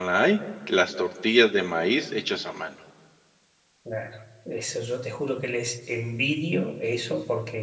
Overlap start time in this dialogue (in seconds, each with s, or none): none